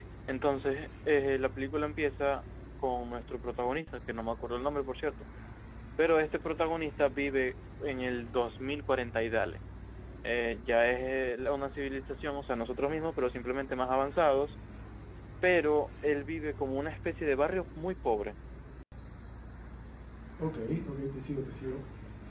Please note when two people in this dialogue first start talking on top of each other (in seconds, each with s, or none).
none